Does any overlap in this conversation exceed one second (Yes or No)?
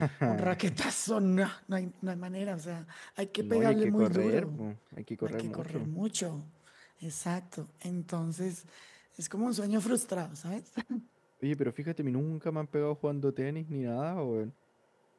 Yes